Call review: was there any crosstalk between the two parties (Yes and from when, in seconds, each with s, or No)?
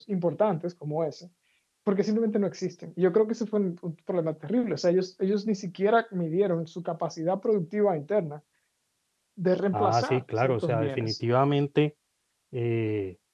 Yes, from 9.7 s